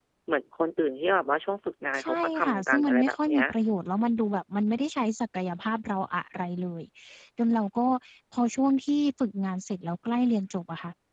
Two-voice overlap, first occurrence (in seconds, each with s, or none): 1.9 s